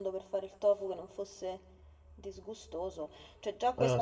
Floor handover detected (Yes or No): No